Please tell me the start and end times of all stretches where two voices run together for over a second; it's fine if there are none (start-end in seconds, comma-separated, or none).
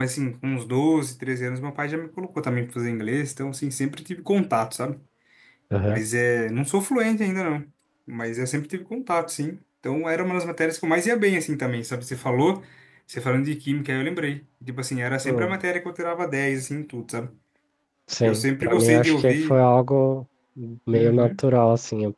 18.2-19.6